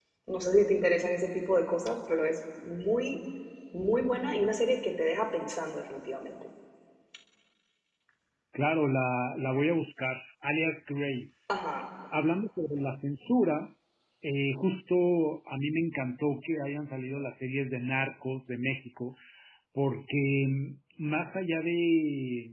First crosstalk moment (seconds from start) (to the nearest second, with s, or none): none